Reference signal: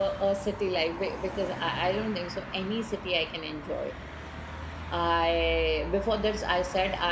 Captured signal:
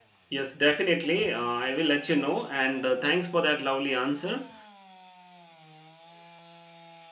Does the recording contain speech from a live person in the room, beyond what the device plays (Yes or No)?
Yes